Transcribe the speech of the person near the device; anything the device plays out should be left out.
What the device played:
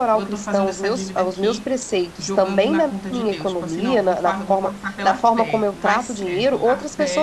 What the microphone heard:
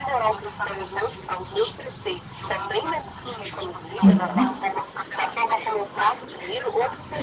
sim.

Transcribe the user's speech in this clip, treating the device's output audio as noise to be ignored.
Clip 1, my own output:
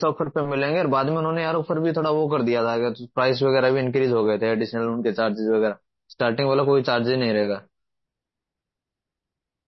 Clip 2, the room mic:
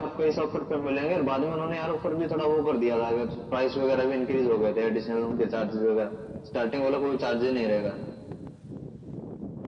none

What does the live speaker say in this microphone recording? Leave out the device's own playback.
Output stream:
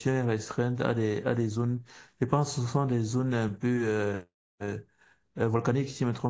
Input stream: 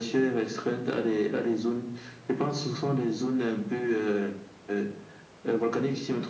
none

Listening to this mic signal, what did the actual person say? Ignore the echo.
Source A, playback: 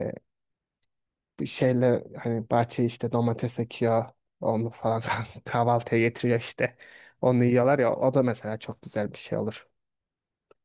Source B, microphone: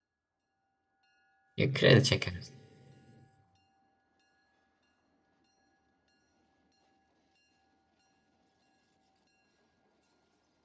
Ya, kredi çekeriz.

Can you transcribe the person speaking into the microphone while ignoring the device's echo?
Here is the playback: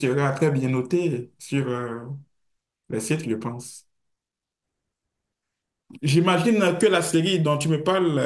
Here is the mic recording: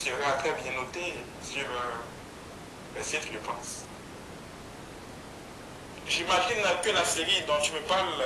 none

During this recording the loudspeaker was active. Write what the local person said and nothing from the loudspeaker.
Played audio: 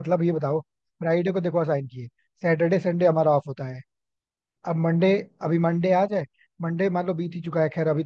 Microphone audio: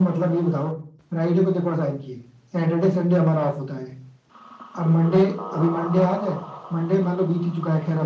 none

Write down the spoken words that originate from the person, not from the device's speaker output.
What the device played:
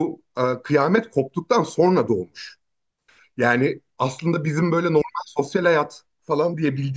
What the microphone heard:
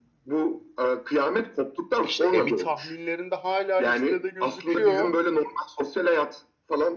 İşte Emmy tahminlerinde hala listede gözüküyor

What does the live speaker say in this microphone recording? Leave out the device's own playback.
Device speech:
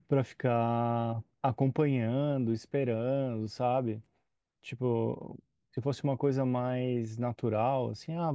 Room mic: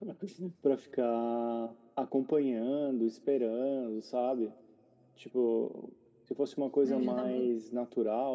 né? Eu já tava

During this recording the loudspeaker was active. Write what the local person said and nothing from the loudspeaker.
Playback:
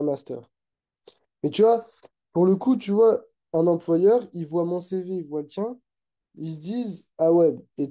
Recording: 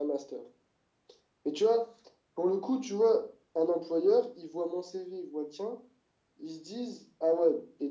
none

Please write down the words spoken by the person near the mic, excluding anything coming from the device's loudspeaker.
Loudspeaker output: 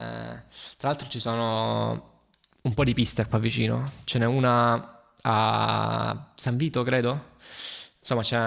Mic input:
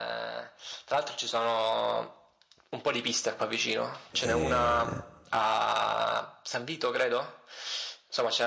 e,

